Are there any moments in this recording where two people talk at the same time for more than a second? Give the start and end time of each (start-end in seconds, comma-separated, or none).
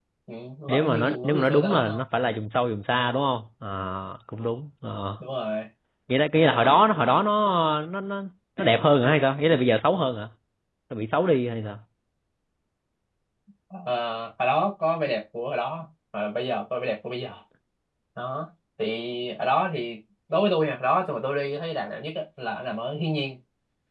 0.7-2.0